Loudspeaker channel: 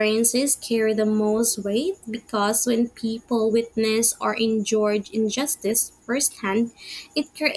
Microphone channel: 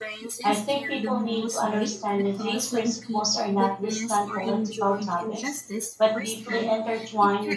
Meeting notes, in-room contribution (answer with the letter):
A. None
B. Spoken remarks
B